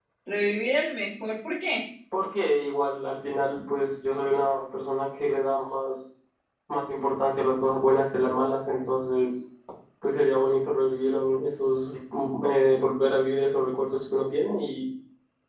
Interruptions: none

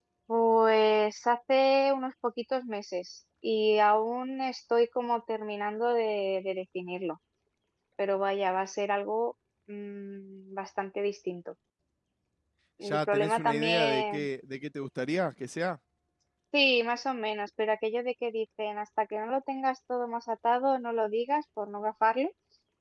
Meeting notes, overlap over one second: present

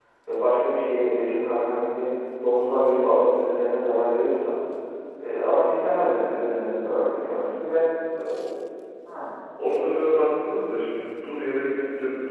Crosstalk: none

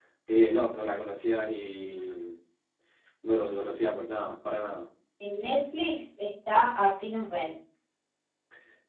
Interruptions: none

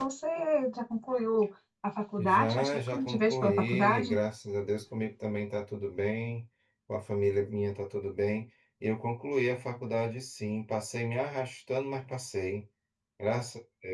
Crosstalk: present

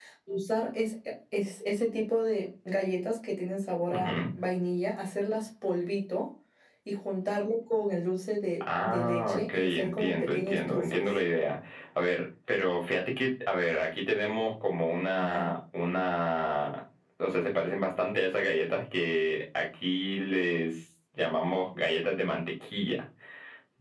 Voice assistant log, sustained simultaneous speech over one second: present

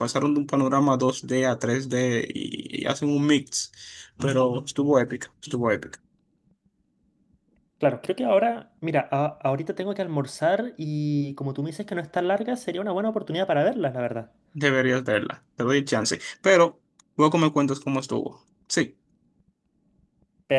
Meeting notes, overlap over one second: none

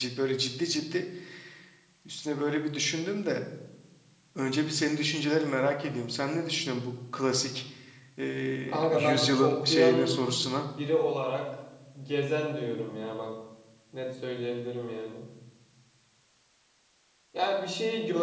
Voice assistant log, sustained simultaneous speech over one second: present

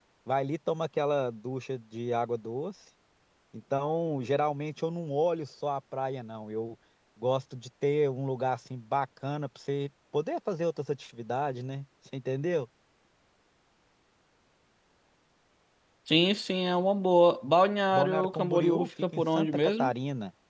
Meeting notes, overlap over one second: present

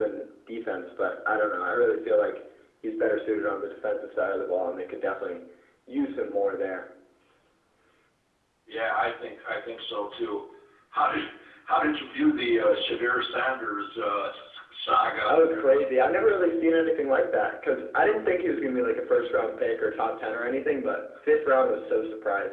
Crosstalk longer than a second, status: none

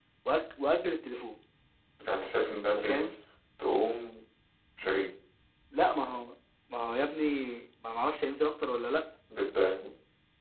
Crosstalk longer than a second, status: none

